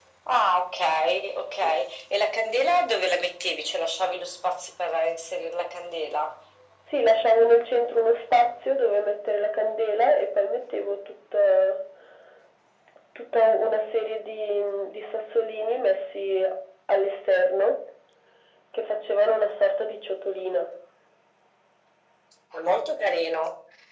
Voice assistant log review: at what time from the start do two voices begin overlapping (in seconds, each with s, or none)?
none